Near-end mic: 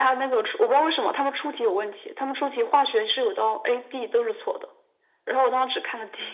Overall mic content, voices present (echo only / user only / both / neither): echo only